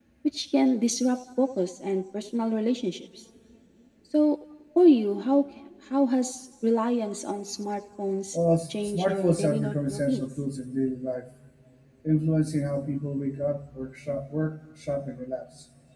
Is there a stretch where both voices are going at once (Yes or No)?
Yes